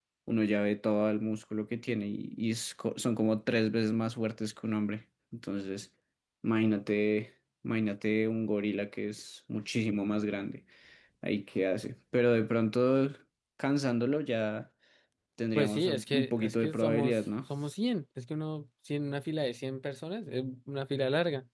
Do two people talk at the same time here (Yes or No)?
Yes